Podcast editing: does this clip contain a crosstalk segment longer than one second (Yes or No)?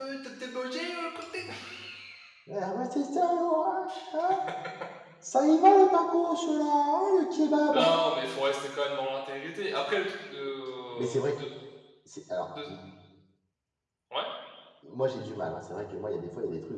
No